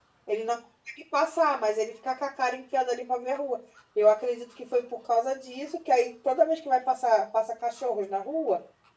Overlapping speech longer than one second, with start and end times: none

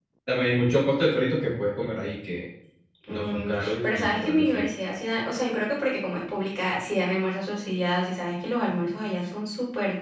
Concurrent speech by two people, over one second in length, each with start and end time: 3.1-4.6

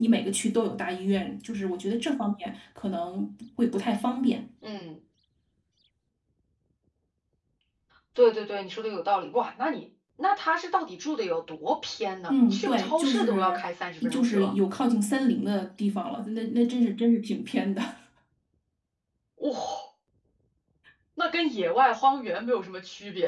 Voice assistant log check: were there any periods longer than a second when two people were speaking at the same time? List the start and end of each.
12.3-13.6

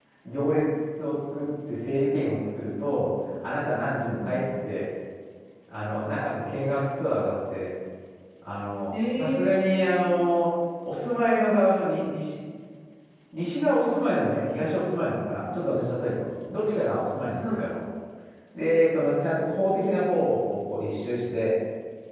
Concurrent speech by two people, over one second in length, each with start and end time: 8.9-10.1

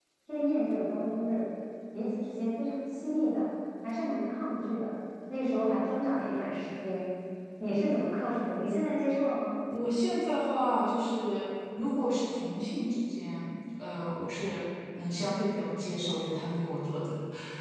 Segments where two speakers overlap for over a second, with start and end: none

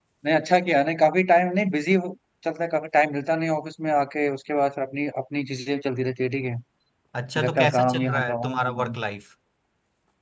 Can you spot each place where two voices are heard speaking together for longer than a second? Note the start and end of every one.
7.4-9.0

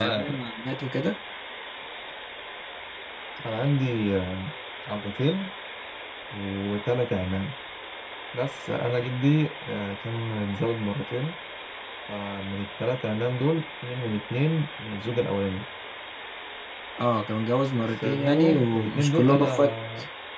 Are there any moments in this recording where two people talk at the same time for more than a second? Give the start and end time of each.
17.8-19.7

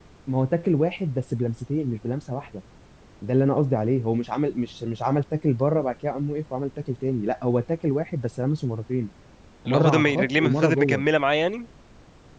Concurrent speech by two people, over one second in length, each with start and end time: 9.7-11.0

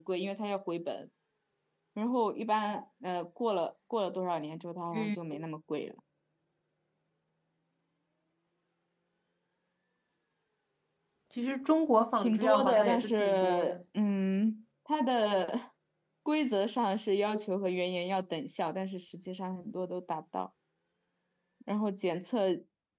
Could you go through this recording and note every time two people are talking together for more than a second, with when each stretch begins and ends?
12.2-13.8

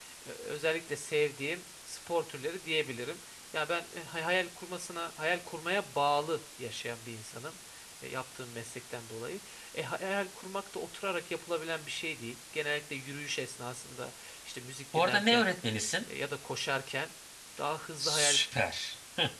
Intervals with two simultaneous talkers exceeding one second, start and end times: none

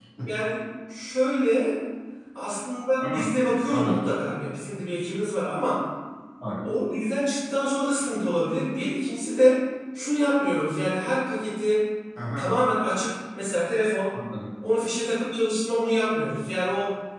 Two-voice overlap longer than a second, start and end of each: none

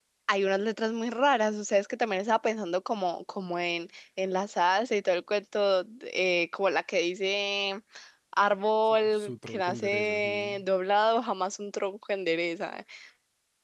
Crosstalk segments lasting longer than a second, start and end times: 9.2-10.6

